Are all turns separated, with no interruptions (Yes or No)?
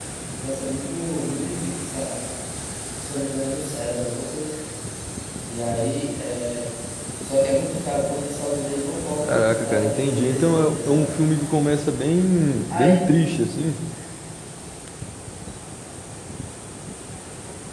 No